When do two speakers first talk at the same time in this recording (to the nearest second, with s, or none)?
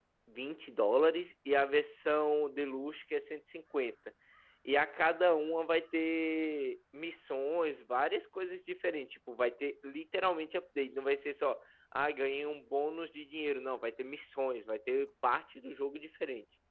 none